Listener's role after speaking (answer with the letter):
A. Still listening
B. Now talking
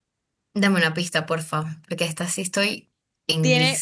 B